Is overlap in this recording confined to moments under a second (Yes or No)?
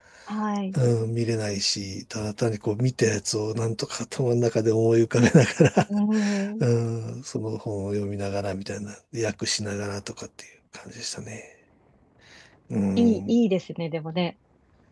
Yes